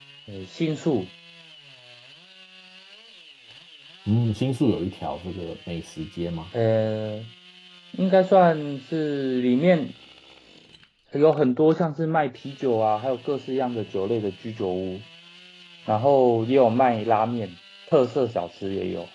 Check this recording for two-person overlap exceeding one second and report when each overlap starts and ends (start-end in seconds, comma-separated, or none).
none